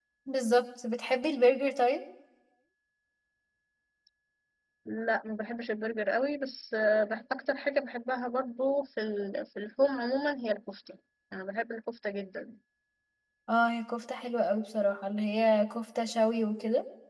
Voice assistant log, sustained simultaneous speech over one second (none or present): none